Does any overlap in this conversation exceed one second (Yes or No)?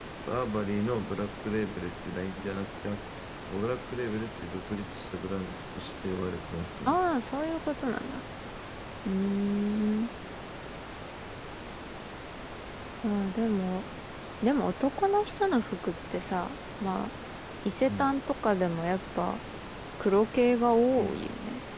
No